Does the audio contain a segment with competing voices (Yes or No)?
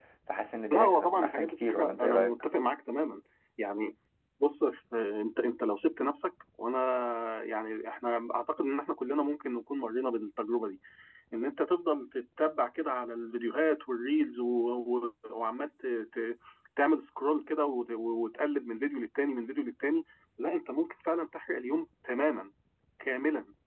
Yes